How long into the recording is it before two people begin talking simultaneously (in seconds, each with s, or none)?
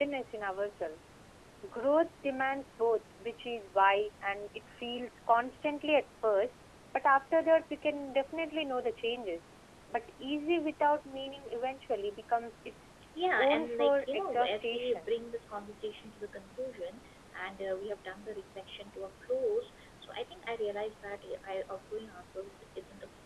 13.4 s